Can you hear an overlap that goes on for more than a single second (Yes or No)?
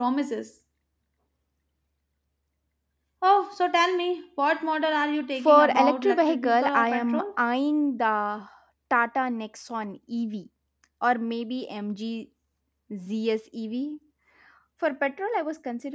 Yes